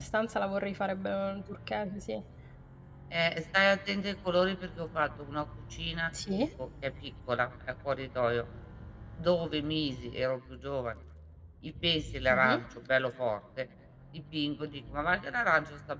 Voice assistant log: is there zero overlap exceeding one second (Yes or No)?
Yes